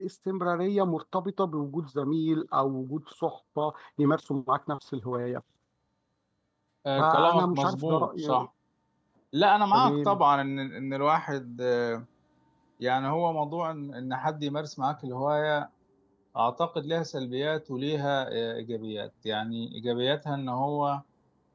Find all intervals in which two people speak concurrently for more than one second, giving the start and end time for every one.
7.0-8.5

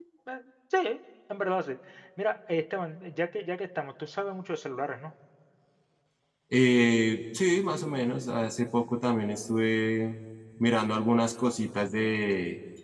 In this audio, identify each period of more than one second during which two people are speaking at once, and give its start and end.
none

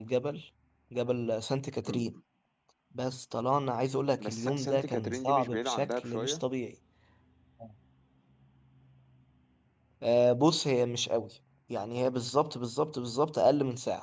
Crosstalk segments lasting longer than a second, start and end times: 4.2-6.4

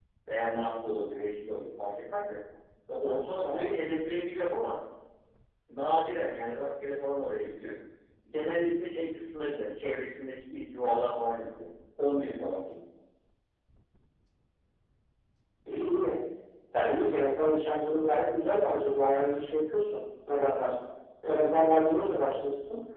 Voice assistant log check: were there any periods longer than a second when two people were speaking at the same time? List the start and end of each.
none

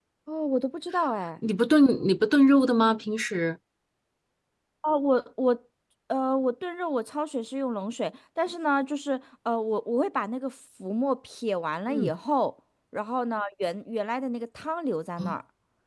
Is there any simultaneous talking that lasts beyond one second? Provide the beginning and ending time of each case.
none

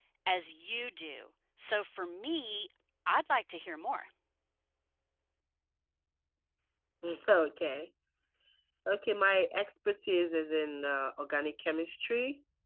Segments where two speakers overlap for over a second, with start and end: none

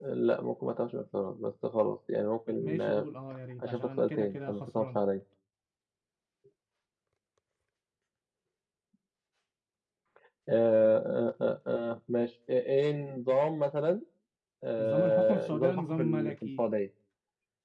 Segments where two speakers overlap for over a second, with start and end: 3.6-5.0, 14.8-16.6

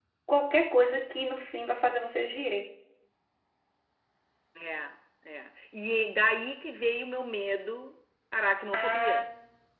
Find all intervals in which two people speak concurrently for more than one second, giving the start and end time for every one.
none

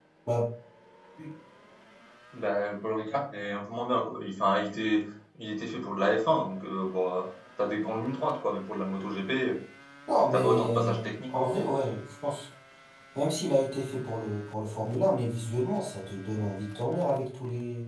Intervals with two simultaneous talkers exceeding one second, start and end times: 10.3-11.5

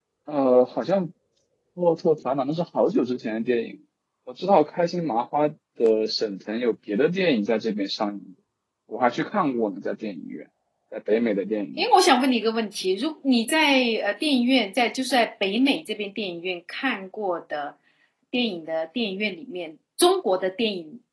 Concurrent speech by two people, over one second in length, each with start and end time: none

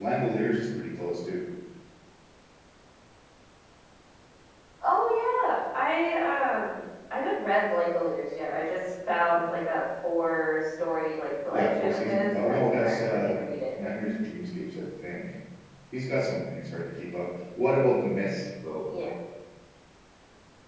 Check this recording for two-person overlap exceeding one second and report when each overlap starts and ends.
11.5-13.3

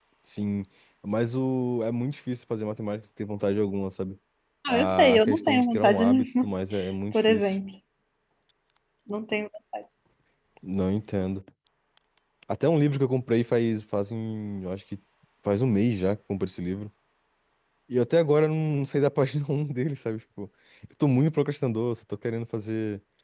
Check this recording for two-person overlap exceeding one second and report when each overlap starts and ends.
4.7-6.5

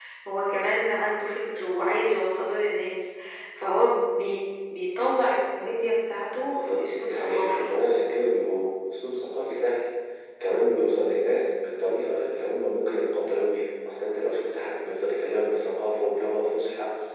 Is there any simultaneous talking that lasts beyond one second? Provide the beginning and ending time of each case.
6.4-7.7

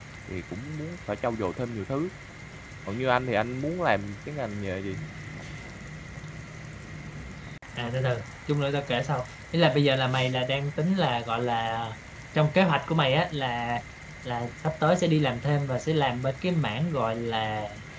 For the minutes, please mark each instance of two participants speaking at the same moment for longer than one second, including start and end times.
none

